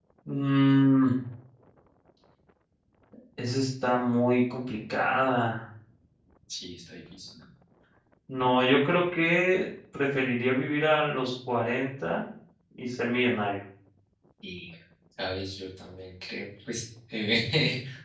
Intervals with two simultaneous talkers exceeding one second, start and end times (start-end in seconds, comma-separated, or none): none